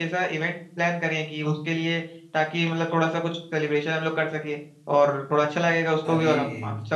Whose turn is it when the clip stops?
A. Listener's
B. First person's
B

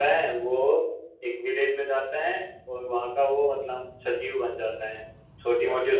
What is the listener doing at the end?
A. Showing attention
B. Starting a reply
A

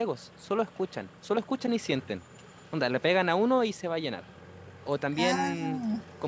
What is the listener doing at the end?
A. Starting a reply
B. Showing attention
B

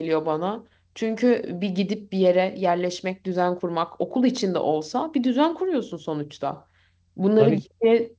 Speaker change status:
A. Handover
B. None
B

